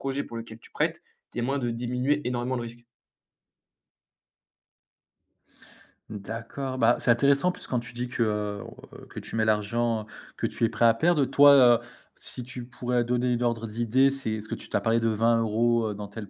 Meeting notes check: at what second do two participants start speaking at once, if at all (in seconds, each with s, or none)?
none